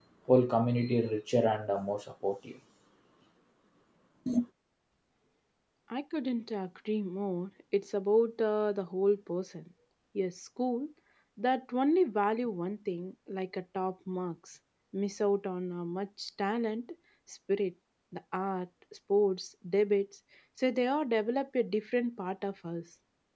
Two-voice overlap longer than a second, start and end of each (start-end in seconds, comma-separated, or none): none